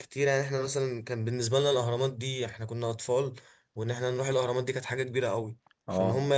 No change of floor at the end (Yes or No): Yes